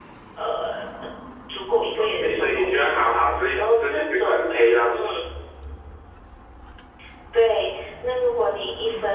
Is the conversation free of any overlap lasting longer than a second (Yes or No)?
No